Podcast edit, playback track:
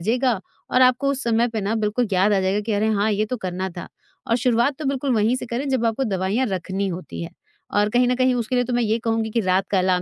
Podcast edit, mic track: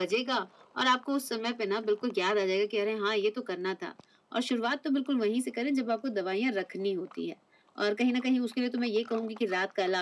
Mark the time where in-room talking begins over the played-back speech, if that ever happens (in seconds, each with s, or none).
none